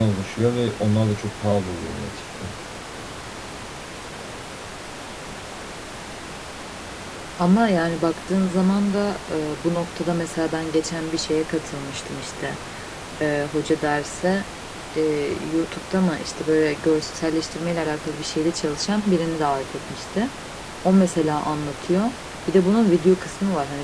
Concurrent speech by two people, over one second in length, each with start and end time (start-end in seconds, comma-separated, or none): none